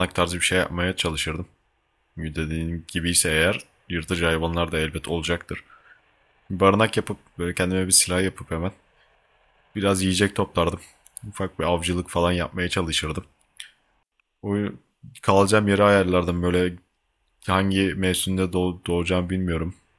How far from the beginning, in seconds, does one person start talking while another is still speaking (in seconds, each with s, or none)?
none